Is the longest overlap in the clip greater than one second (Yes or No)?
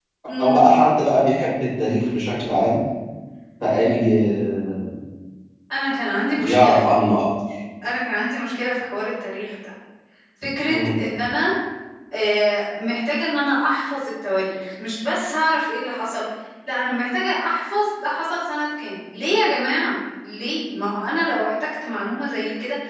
No